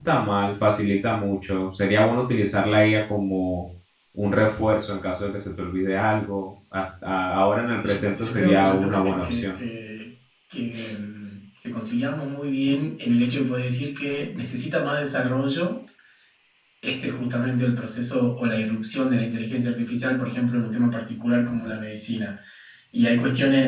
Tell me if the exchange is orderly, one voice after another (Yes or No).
No